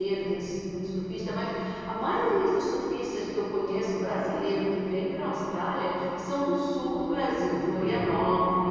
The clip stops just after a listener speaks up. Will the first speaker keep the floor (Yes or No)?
Yes